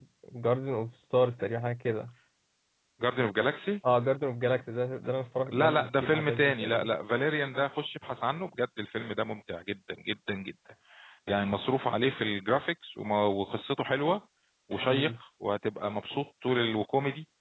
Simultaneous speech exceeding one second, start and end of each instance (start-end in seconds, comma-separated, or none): 5.5-6.9